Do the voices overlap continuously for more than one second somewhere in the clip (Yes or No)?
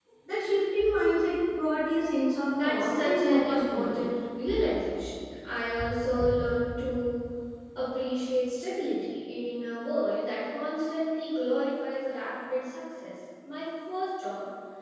Yes